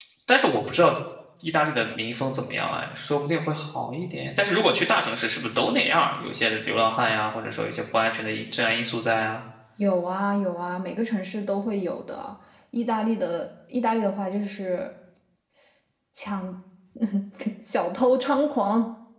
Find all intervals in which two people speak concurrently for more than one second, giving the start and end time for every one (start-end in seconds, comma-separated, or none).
none